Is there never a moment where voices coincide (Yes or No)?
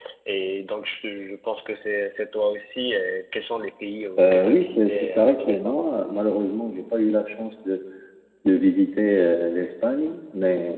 No